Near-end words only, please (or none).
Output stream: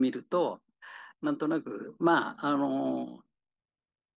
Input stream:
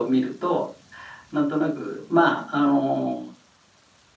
none